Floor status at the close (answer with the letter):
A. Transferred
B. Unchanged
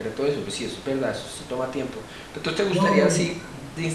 B